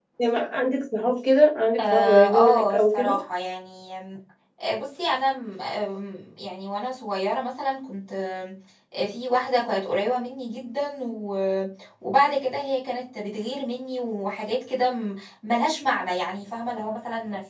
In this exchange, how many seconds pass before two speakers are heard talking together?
1.8 s

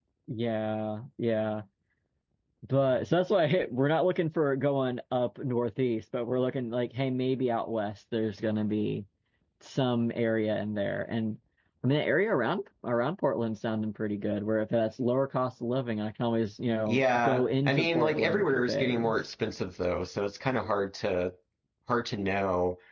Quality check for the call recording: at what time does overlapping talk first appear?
16.9 s

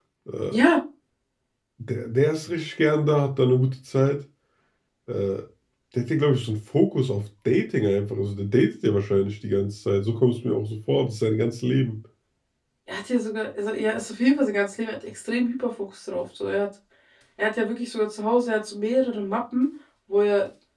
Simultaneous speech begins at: none

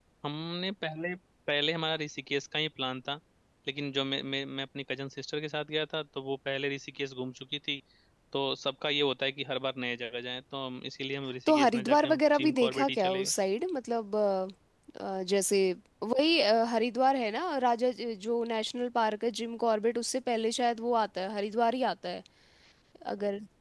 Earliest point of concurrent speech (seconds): 11.5 s

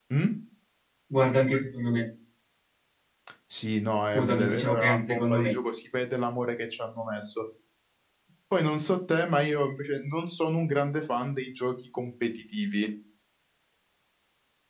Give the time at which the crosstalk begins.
4.1 s

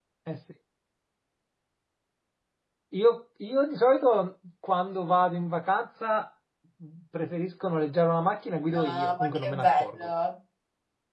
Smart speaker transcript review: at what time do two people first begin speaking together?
8.7 s

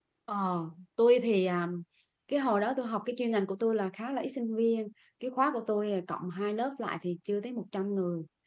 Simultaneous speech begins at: none

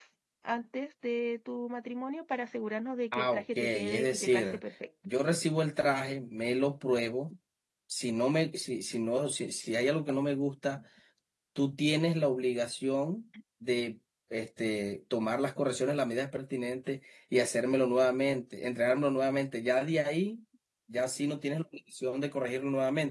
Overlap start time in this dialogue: 3.1 s

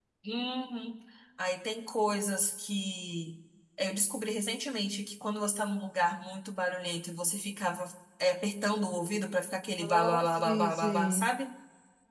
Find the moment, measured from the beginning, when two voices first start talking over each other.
9.8 s

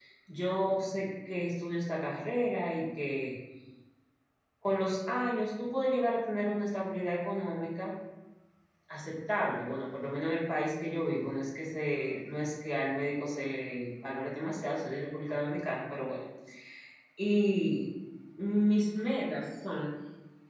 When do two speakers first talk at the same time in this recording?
none

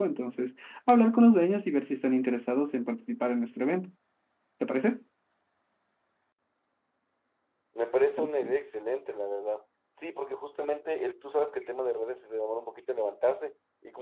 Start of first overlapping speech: none

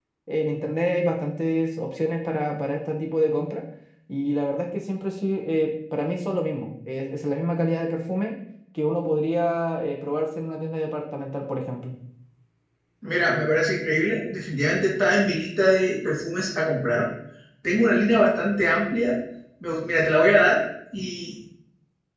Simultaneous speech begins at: none

